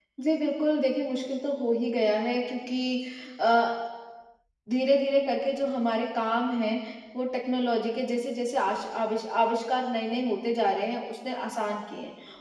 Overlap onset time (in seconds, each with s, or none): none